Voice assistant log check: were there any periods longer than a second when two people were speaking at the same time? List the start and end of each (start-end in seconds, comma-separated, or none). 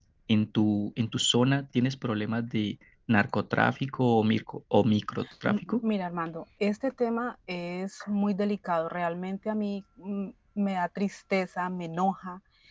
none